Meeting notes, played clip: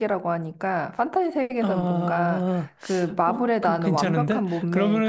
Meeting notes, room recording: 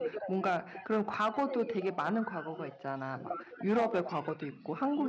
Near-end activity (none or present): present